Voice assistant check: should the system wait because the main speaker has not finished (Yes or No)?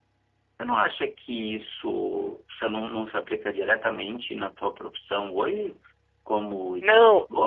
Yes